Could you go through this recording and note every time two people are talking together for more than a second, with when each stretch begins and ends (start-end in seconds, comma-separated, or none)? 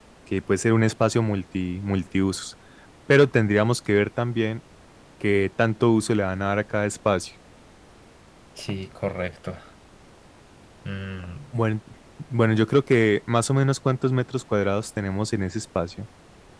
none